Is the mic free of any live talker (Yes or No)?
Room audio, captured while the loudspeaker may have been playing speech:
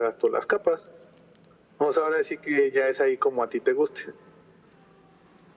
Yes